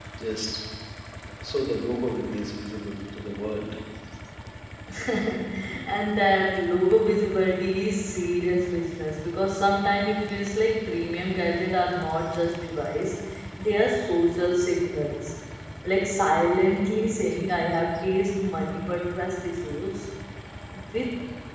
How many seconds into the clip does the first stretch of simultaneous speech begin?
none

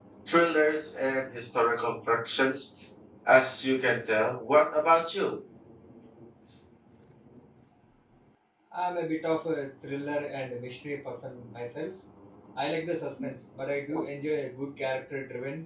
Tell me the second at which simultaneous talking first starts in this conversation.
none

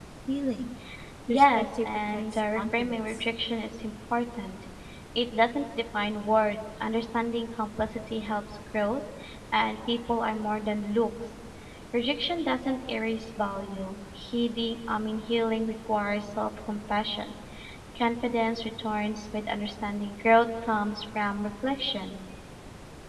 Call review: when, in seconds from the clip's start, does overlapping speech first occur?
1 s

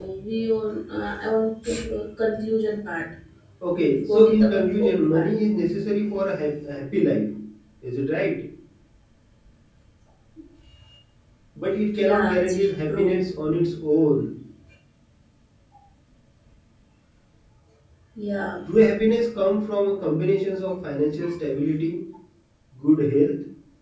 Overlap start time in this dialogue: 4 s

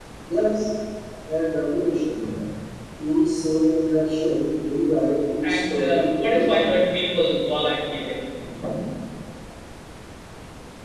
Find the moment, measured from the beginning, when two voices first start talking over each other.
5 s

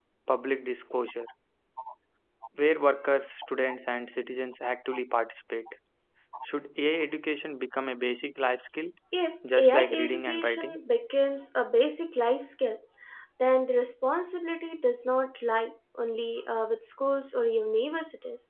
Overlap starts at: 10 s

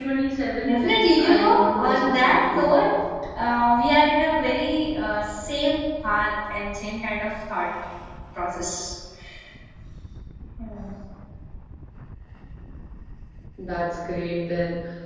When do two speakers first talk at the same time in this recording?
1 s

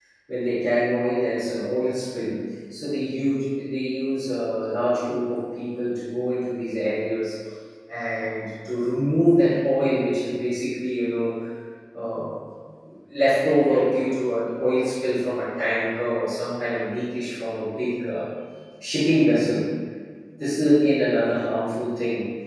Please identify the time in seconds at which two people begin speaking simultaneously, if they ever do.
none

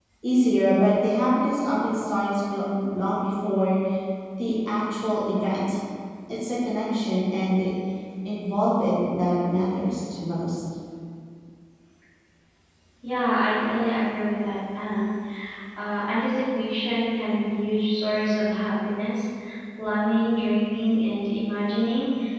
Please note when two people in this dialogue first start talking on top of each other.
none

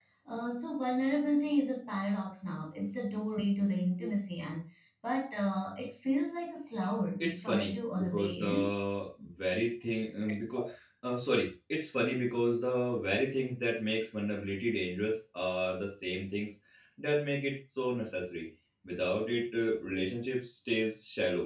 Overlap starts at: 7 s

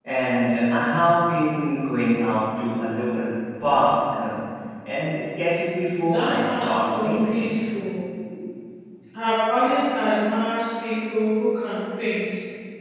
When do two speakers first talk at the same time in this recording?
6 s

